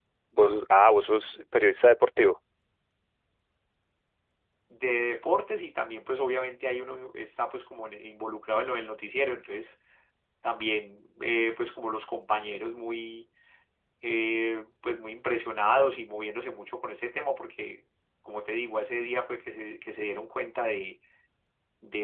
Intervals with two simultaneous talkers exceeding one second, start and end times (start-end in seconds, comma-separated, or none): none